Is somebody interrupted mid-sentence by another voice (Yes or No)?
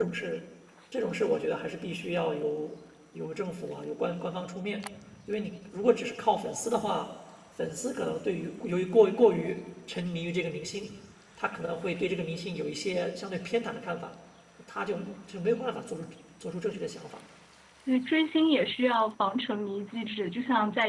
No